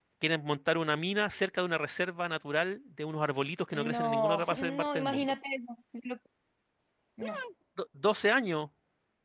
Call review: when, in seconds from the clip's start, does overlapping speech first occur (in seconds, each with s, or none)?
3.7 s